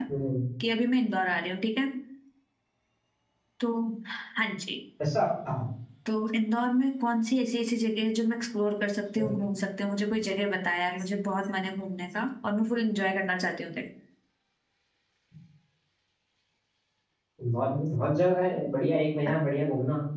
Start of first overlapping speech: none

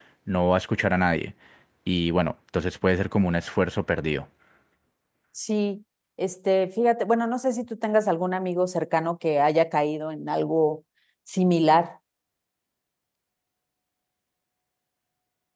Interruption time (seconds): none

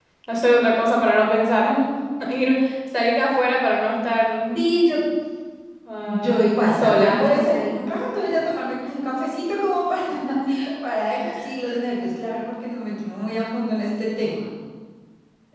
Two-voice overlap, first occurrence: 6.0 s

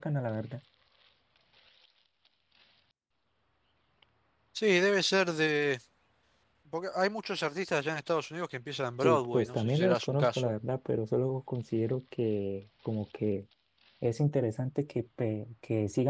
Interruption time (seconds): 9.0 s

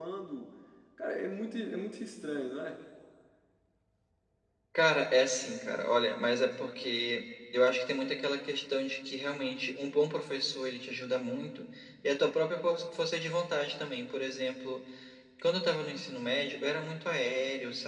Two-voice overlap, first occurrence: none

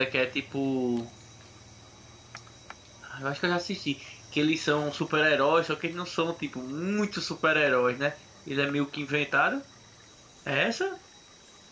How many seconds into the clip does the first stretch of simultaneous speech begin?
none

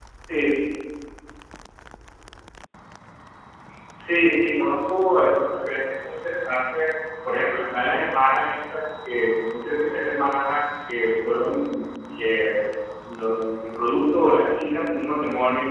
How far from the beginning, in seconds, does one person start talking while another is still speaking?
none

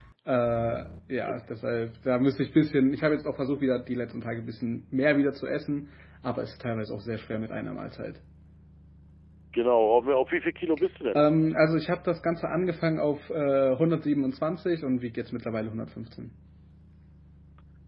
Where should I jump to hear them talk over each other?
none

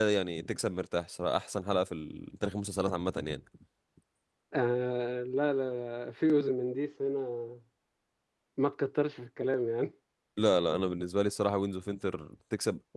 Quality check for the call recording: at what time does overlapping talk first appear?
none

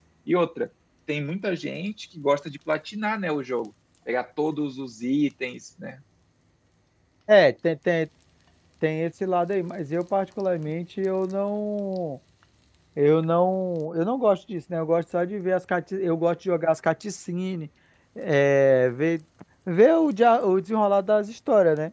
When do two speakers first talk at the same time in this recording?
none

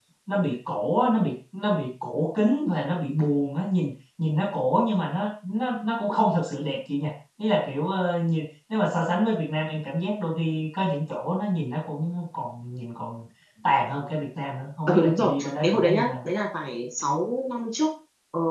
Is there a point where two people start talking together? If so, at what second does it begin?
14.9 s

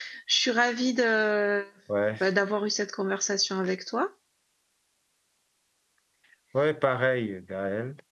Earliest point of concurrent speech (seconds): none

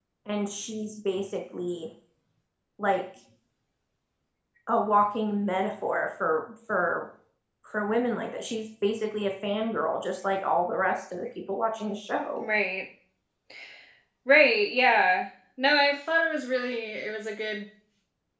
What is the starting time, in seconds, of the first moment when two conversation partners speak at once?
none

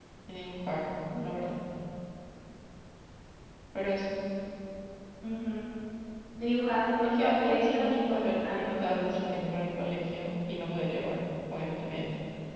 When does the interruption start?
7.0 s

